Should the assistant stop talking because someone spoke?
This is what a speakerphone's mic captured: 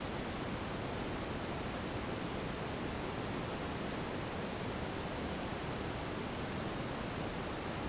No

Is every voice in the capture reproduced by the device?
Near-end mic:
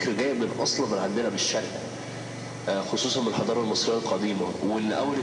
Yes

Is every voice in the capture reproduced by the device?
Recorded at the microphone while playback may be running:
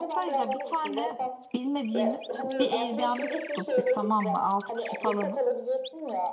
No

